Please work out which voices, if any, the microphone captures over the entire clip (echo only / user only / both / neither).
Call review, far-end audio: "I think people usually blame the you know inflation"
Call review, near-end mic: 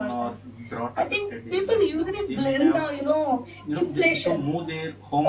both